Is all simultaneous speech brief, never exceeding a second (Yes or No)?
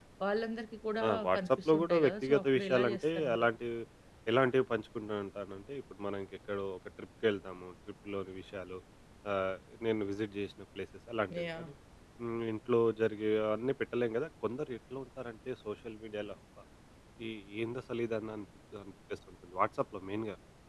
No